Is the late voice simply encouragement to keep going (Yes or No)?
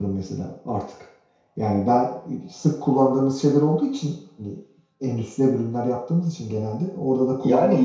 No